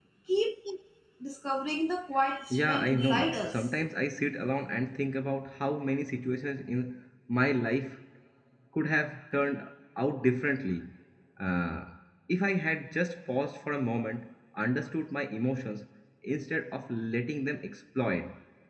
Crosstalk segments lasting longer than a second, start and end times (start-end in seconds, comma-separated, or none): 2.5-3.8